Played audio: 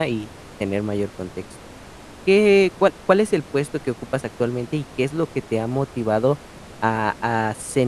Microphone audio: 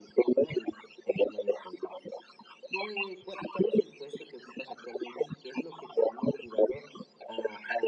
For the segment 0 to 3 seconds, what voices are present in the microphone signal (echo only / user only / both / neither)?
echo only